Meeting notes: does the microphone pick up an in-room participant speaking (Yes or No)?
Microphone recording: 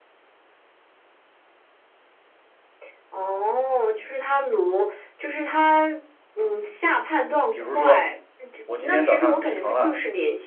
Yes